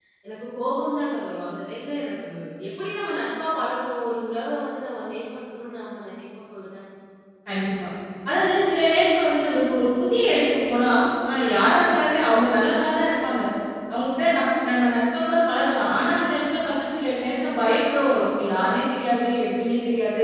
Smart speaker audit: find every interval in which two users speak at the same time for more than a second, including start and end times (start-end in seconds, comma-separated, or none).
none